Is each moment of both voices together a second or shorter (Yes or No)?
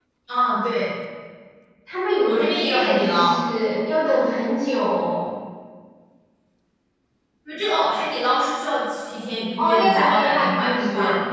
No